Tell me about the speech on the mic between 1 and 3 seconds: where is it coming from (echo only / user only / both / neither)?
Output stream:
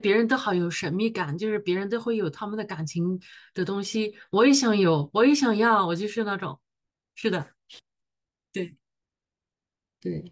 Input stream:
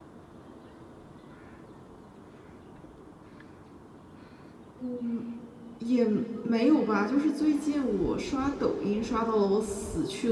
neither